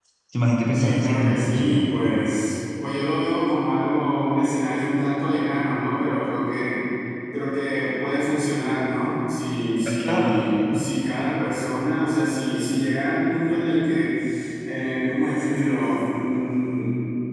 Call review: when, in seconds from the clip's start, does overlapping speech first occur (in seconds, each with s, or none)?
0.7 s